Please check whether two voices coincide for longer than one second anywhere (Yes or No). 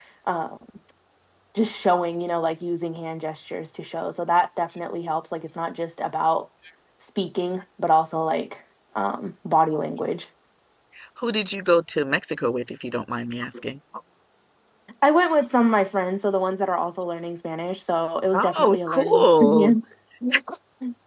Yes